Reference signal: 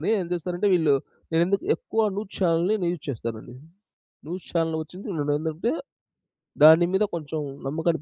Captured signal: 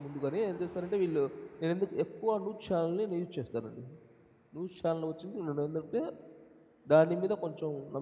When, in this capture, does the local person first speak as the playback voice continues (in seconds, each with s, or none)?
none